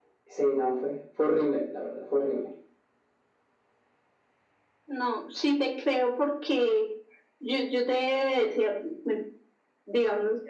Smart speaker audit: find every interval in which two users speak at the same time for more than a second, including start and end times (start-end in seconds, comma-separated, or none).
none